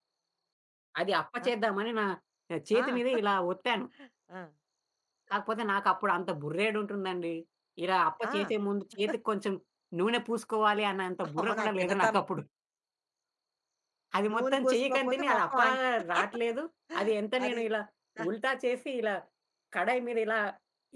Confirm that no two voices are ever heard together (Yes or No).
No